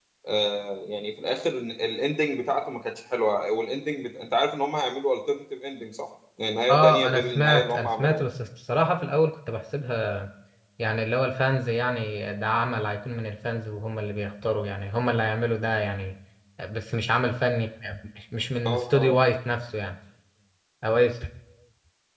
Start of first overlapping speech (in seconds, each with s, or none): 6.7 s